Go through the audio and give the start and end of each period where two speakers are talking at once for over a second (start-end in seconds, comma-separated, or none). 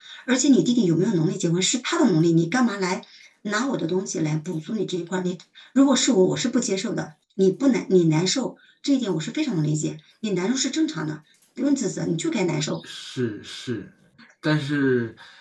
none